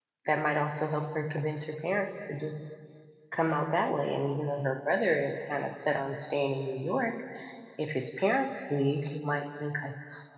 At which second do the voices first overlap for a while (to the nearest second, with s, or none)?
none